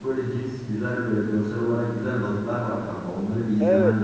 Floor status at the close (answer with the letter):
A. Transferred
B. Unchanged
A